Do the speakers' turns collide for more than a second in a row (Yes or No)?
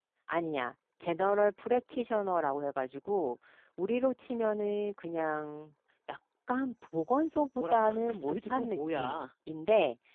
Yes